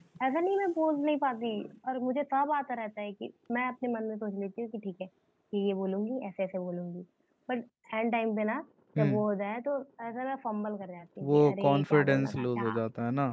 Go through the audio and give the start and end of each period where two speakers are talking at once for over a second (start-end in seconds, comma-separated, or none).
11.3-12.8